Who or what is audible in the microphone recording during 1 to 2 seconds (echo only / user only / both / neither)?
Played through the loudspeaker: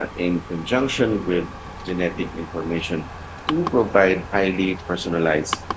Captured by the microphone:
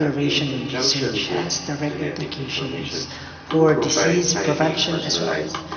both